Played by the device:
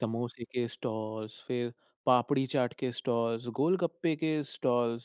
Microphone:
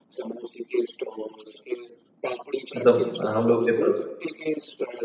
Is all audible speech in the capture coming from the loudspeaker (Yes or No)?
No